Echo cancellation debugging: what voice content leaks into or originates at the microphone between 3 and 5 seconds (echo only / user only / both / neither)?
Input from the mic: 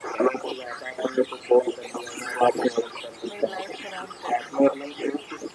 both